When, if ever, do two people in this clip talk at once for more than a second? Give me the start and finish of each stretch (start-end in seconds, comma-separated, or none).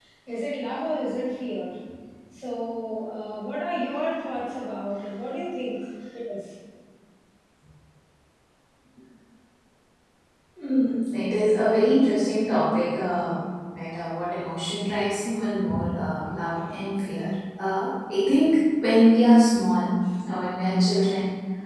none